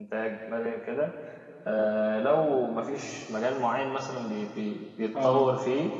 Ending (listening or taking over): listening